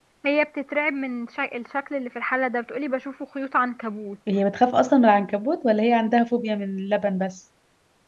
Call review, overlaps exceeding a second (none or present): none